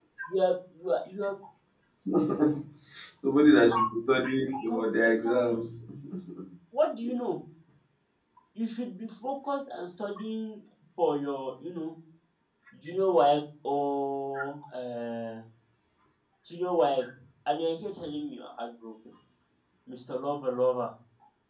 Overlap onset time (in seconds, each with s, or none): 4.5 s